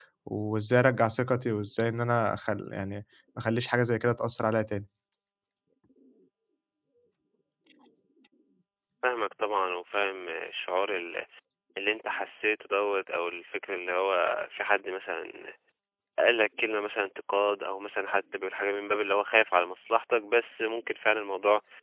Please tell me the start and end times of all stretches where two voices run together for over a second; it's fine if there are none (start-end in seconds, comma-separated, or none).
none